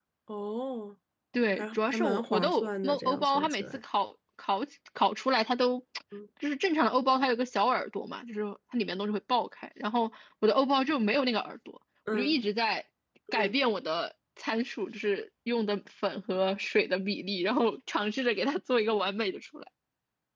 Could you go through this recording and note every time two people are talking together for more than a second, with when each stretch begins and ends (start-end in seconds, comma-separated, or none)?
1.6-3.8